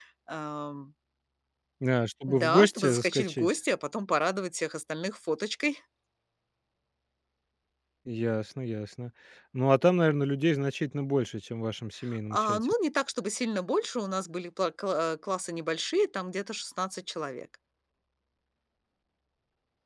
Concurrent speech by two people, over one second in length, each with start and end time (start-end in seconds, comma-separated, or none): 2.3-3.5